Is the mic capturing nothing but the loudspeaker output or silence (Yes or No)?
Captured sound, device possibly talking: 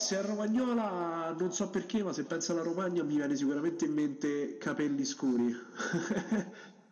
Yes